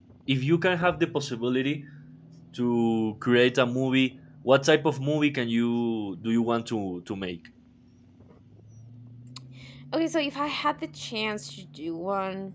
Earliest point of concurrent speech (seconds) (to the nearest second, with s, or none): none